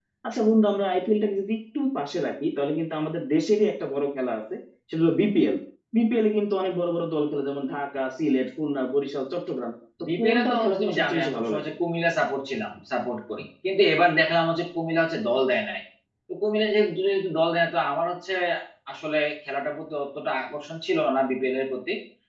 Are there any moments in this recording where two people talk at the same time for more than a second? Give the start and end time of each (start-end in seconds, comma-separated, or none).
10.2-11.7